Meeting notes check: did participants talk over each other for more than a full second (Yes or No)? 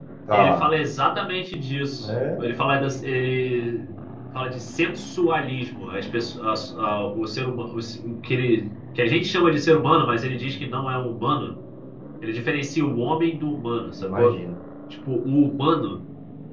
No